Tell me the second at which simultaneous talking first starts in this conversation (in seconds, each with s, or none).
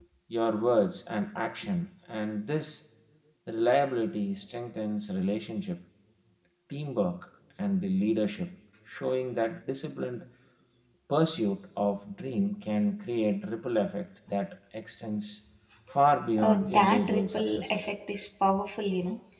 16.4 s